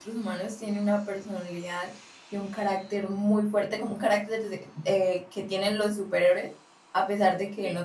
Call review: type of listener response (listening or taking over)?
listening